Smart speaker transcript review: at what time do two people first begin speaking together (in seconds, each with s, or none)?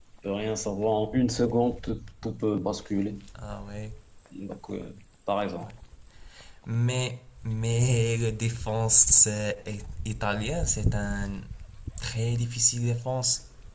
none